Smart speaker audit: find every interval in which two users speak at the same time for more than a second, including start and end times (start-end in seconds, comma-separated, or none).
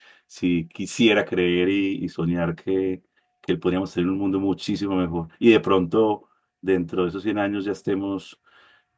none